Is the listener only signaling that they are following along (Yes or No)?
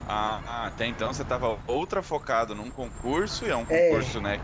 Yes